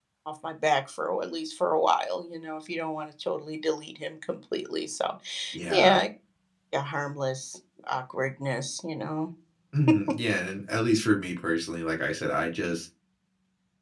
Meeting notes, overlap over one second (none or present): none